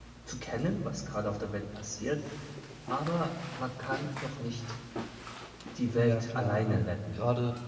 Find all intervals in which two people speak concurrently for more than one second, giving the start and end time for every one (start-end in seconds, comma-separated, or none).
6.0-7.2